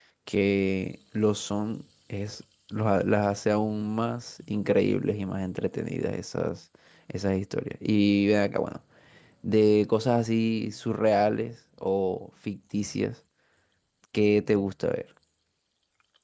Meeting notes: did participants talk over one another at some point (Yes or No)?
No